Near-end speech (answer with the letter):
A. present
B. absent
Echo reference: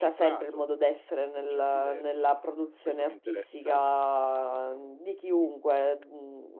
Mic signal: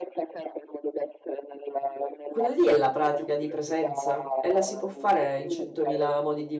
A